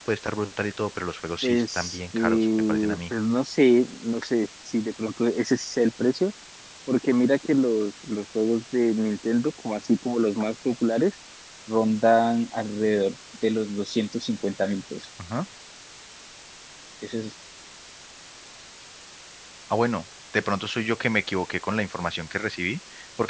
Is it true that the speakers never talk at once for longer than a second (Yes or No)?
No